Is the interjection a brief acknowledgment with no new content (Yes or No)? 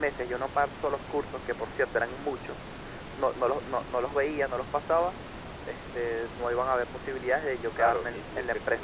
No